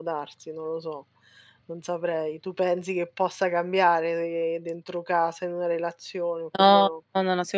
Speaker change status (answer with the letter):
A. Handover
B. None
A